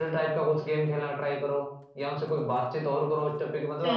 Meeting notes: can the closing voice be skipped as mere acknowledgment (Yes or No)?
Yes